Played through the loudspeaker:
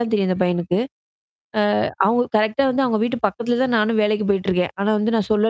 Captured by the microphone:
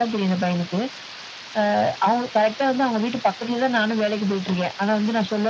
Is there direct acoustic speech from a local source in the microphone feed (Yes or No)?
No